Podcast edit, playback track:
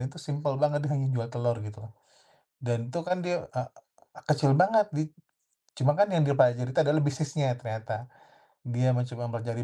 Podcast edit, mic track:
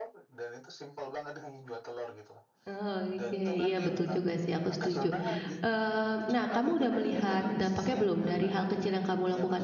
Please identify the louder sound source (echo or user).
user